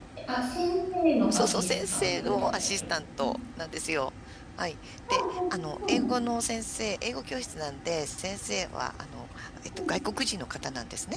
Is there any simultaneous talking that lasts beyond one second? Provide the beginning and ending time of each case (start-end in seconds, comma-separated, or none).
1.3-3.3